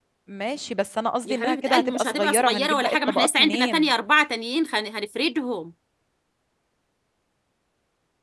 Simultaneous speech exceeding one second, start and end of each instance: 1.2-3.9

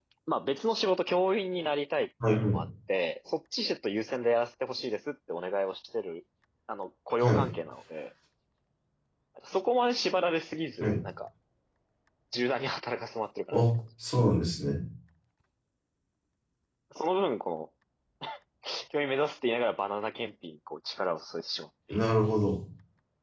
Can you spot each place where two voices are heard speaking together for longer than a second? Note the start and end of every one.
none

